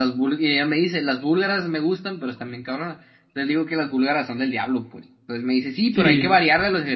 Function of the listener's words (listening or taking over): listening